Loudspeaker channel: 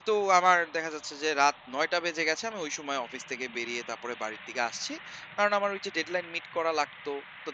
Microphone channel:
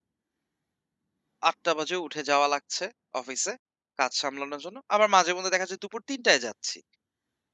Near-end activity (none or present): present